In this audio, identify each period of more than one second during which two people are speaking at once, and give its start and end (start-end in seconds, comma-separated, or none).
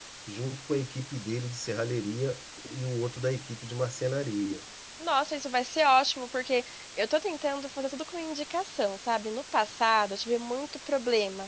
none